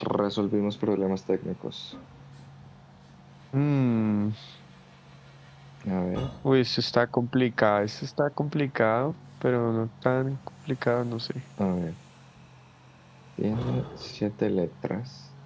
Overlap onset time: none

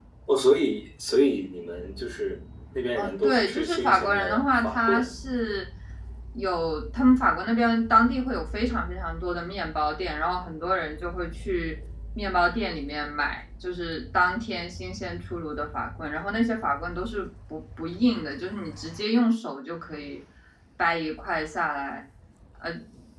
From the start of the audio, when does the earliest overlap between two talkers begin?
3.0 s

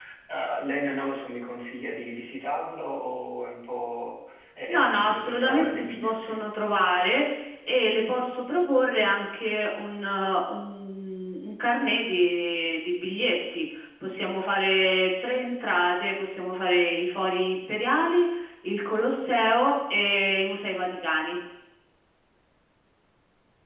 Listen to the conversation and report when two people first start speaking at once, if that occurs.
4.7 s

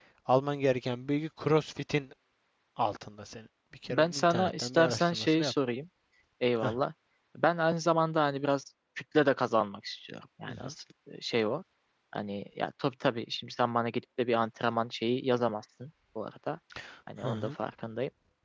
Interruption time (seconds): 3.9 s

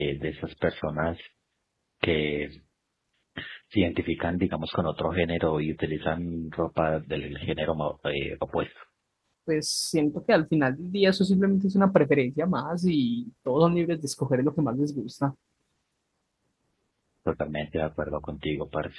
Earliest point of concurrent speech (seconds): none

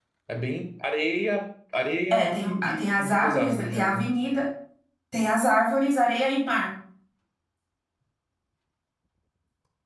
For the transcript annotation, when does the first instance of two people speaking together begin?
2.1 s

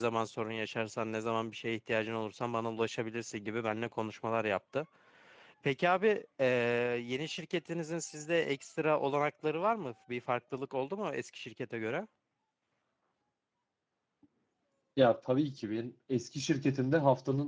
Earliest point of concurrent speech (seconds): none

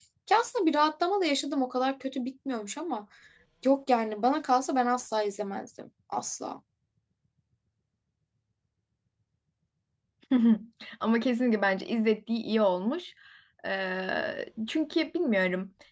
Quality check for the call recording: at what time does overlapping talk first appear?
none

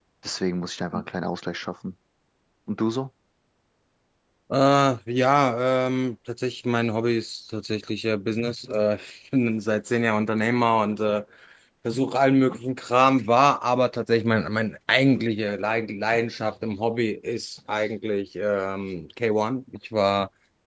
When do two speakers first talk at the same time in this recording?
none

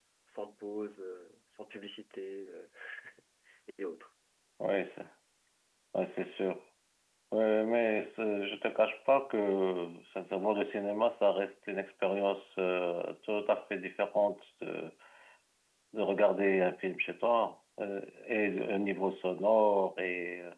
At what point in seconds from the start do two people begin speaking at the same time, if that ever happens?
none

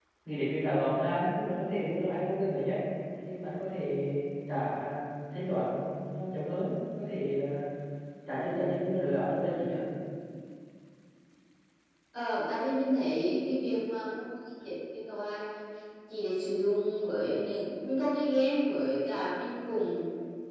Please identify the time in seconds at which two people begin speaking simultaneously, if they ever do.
none

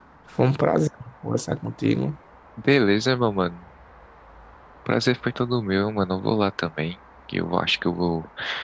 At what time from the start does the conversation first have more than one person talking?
none

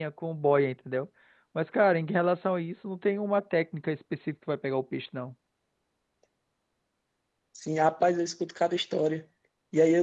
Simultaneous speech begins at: none

